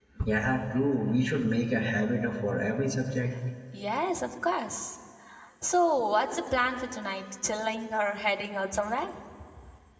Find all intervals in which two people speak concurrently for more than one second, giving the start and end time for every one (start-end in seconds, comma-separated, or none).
none